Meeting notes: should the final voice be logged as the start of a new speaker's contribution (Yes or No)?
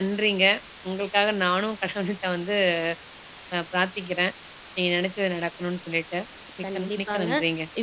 Yes